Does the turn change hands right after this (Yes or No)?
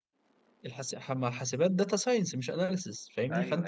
No